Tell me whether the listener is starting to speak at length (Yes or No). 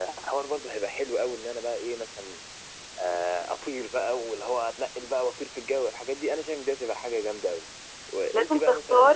Yes